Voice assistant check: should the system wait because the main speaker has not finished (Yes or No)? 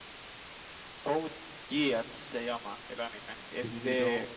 Yes